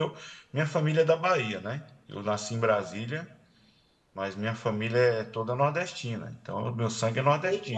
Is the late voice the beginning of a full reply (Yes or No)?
Yes